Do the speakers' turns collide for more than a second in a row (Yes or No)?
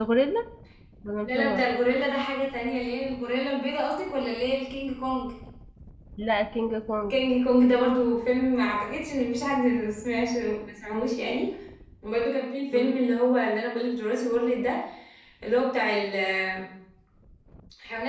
No